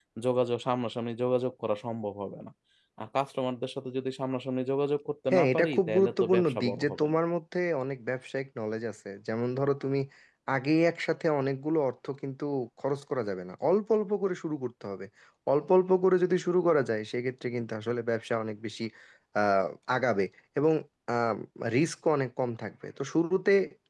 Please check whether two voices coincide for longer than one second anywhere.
Yes, from 5.3 s

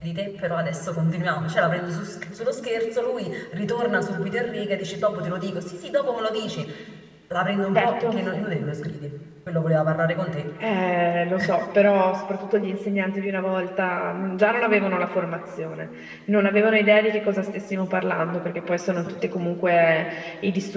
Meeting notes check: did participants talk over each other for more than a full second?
No

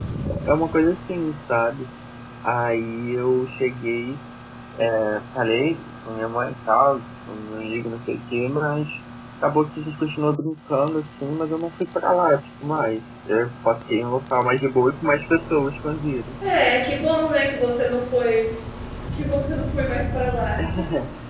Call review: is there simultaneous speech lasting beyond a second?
No

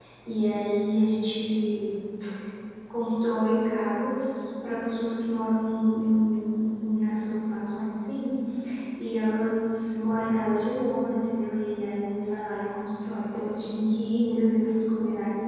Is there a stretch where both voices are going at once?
No

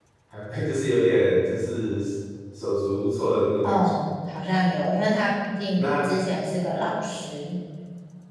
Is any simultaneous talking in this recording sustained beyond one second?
No

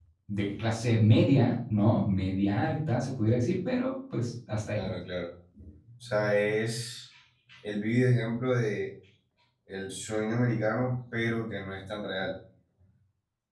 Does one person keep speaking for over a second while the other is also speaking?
No

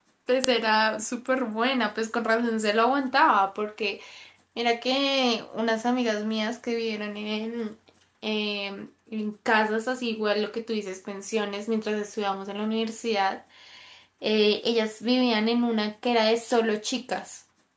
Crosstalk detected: No

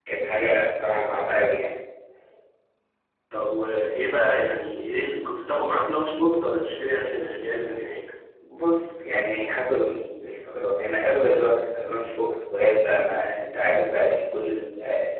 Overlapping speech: No

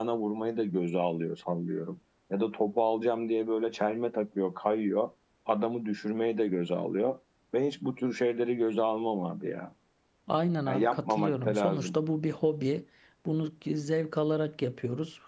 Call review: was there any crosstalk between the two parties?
Yes, from 10.7 s

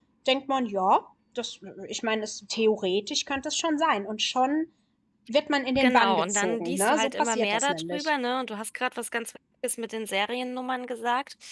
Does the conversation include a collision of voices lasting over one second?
Yes, from 5.8 s

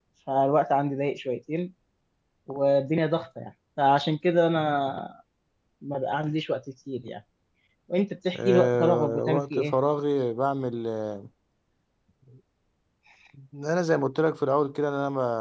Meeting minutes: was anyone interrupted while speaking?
Yes, from 8.4 s

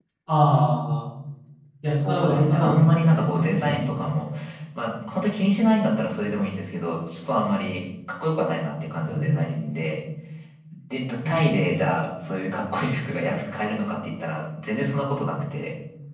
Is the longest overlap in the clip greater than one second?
Yes, from 2.0 s

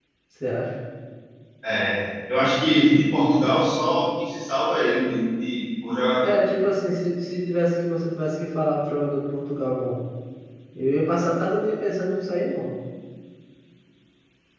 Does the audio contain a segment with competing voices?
No

